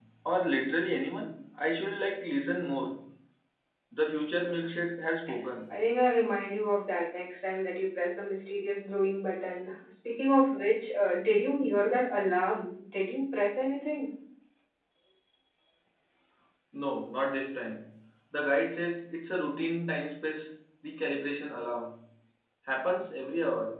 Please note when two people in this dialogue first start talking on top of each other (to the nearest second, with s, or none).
none